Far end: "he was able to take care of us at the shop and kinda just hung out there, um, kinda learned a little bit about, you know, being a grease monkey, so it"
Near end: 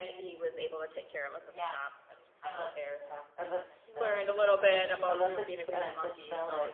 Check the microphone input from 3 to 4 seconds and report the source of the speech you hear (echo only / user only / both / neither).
both